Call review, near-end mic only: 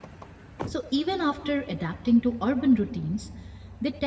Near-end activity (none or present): present